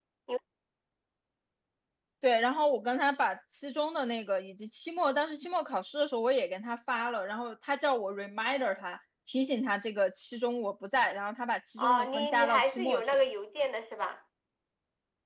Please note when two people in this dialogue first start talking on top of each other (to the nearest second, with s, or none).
12 s